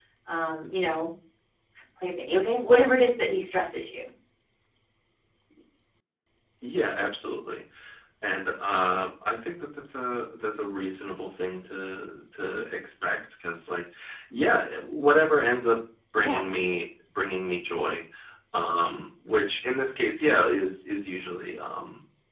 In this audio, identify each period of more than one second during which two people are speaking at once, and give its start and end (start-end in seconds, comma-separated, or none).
none